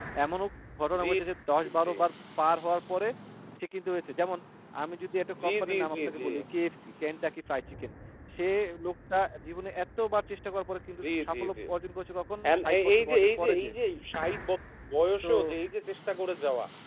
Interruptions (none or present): present